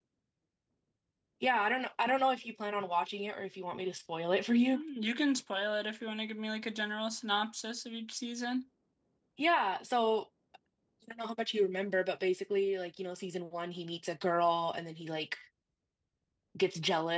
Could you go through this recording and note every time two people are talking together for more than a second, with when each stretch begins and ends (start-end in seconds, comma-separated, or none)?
none